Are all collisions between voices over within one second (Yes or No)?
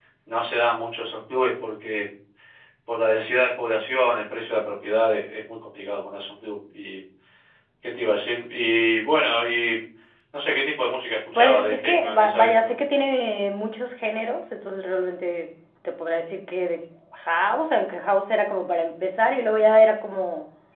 No